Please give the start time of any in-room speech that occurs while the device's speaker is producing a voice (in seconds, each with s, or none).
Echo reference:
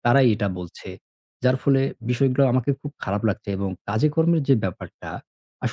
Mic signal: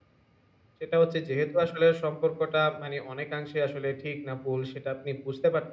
0.8 s